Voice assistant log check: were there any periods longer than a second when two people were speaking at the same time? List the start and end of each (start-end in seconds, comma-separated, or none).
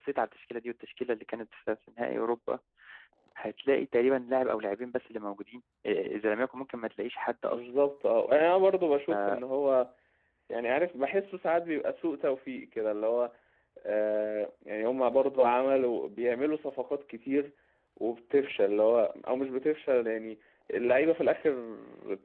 none